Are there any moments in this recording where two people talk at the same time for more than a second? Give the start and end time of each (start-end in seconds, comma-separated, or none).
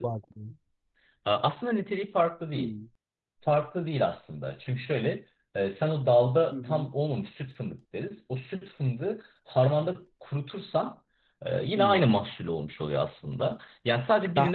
none